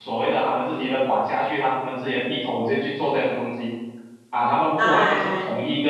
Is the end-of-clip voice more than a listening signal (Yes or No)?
No